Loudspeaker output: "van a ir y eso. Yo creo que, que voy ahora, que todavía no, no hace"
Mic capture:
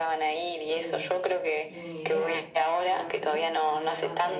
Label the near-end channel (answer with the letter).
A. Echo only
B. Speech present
B